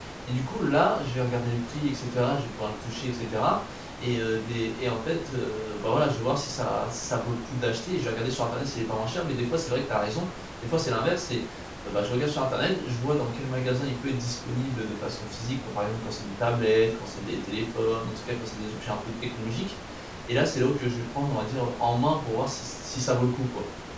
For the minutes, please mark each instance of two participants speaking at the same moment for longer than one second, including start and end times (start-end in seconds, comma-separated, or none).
none